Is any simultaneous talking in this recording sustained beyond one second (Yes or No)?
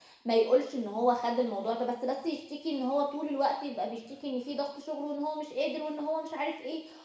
No